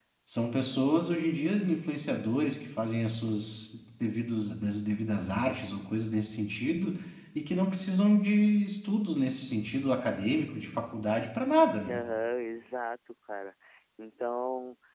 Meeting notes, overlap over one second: none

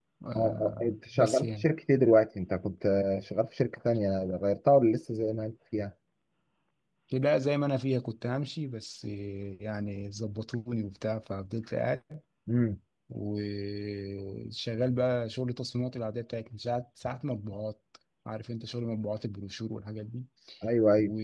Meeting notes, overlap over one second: present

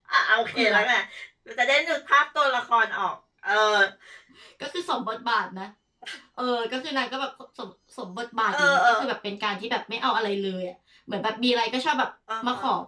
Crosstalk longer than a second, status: none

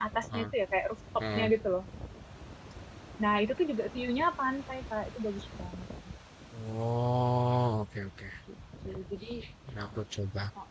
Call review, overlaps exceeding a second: none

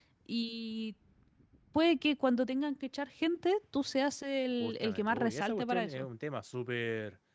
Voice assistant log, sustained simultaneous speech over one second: present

